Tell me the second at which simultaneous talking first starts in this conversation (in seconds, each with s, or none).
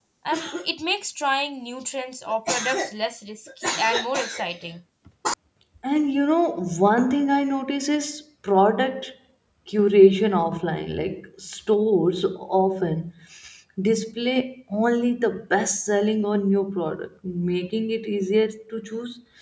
none